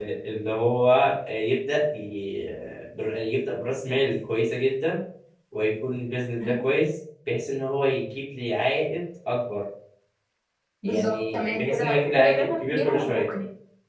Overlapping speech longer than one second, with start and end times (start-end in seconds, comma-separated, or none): 10.8-13.3